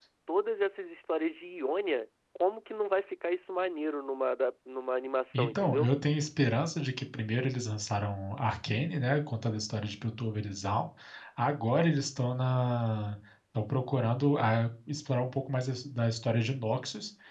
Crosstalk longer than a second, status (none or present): none